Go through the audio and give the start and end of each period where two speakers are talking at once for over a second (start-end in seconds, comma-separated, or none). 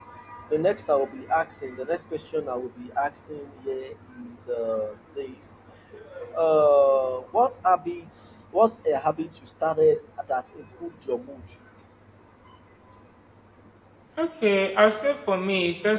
none